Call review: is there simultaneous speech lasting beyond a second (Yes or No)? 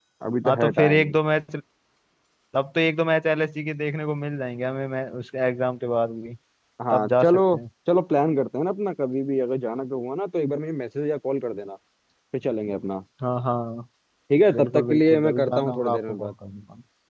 Yes